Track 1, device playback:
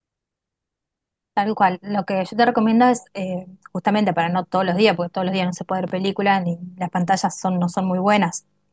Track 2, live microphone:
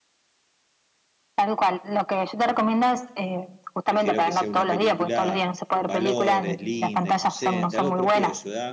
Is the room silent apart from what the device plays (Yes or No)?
No